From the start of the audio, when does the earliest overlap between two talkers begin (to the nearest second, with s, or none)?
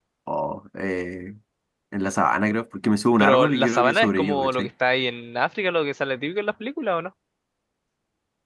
3 s